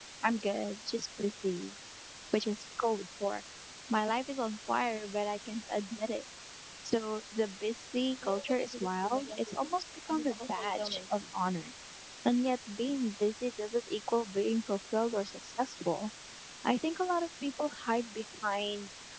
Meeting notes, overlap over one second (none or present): present